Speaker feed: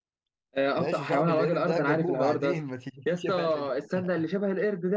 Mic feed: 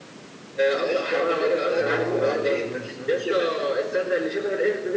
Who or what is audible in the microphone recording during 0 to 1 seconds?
echo only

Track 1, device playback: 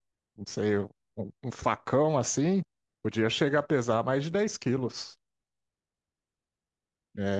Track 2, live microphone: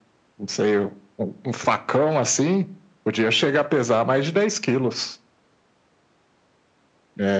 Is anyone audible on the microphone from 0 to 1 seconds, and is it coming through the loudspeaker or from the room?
echo only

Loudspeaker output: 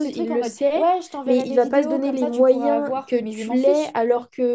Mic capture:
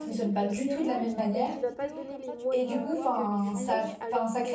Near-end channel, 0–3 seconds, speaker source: both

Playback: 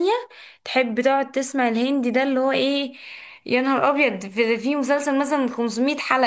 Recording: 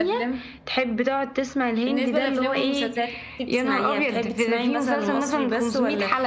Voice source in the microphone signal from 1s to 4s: both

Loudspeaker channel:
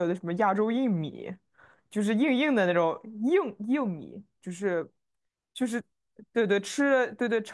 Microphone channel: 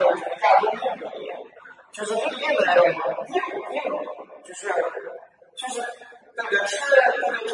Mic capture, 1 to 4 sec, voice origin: echo only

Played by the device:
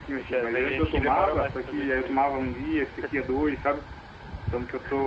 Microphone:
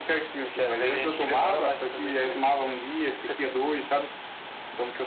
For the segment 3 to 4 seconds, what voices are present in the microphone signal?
echo only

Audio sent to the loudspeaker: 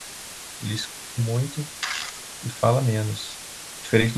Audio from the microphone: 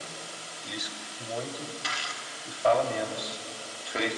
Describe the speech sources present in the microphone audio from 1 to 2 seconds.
echo only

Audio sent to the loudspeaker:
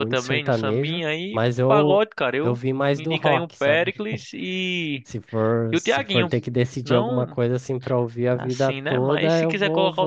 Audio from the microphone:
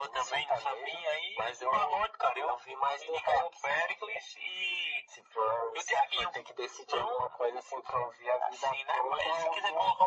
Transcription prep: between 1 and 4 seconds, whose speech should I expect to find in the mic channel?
echo only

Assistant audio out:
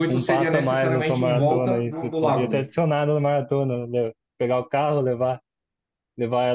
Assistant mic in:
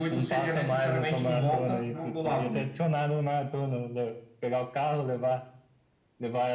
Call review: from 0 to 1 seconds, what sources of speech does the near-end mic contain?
echo only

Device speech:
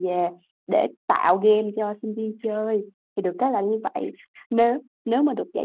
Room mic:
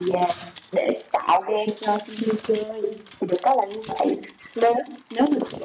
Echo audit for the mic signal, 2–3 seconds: echo only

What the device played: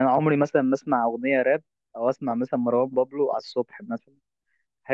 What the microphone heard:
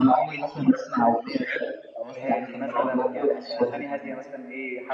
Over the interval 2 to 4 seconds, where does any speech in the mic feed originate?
both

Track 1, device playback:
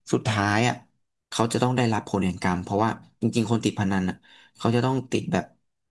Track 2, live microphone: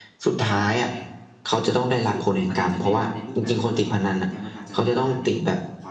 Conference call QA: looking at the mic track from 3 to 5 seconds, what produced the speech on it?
both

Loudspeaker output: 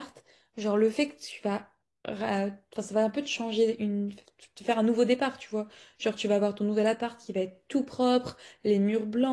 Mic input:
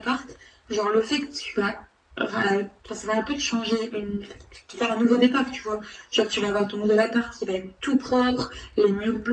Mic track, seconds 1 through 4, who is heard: echo only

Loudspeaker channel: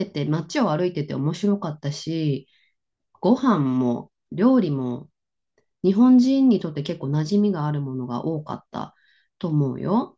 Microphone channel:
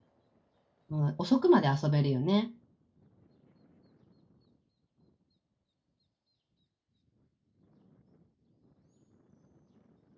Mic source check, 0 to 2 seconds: user only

